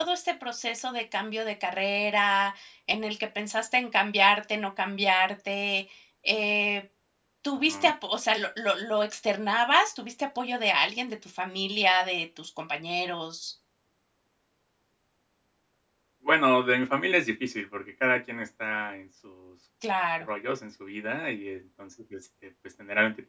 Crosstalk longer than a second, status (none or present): none